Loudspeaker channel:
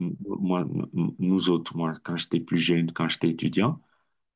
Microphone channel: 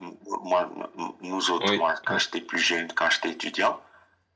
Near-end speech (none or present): present